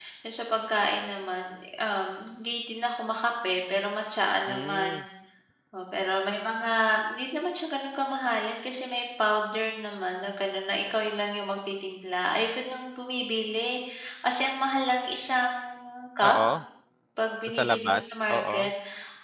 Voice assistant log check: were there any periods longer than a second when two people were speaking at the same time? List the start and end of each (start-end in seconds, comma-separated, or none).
17.5-18.7